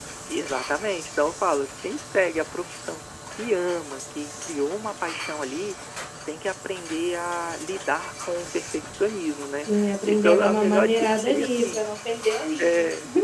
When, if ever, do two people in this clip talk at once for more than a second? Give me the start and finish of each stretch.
9.7-11.8

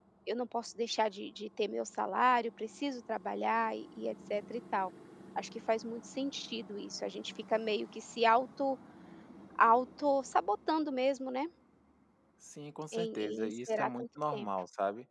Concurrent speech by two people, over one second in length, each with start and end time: 12.9-14.5

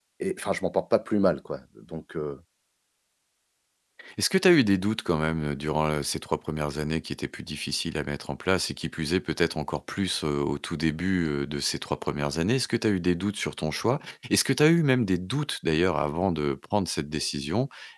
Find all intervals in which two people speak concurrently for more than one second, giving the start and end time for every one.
none

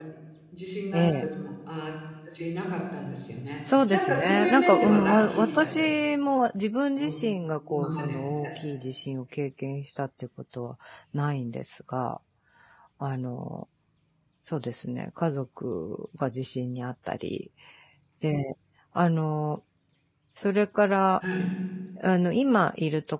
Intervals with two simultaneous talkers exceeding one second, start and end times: 3.9-6.1

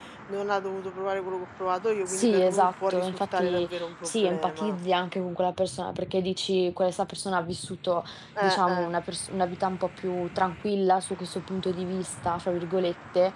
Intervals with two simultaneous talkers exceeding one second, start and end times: 2.1-4.8

